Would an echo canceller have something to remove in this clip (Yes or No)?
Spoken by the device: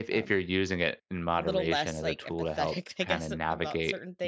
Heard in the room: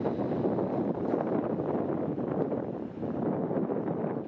No